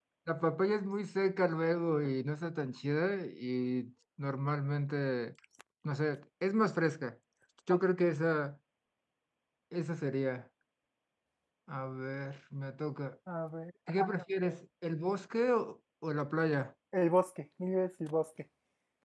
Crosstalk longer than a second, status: none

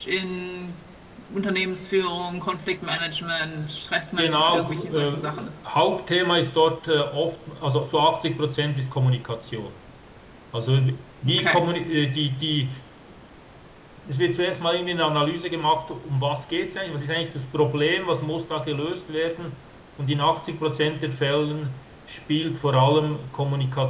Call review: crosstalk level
present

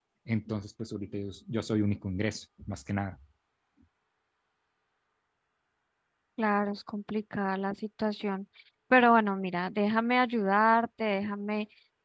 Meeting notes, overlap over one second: none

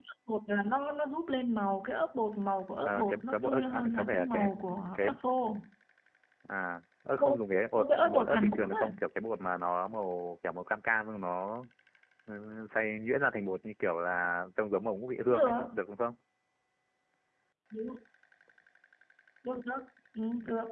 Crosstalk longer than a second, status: present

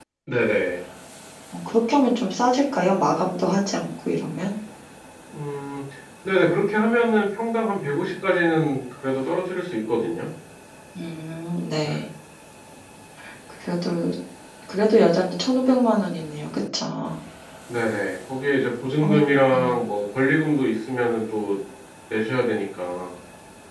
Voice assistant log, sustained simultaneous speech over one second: none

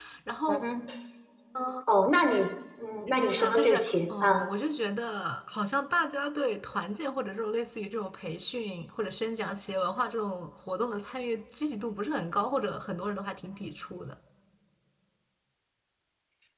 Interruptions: present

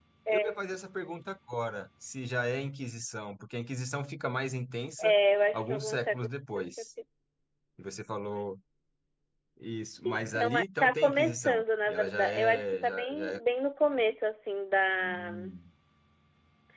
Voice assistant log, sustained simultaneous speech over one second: present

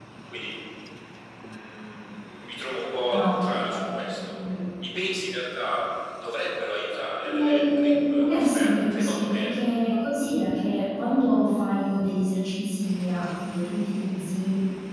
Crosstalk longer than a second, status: present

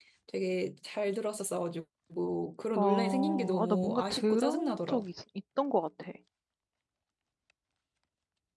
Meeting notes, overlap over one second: present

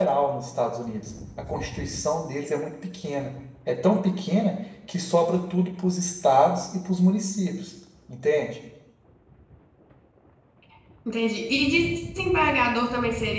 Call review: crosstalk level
none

